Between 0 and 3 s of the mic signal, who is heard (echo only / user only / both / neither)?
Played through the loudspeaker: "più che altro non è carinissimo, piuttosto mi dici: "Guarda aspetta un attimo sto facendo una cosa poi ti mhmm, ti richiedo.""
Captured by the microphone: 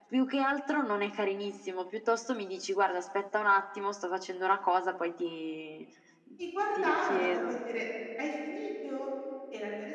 echo only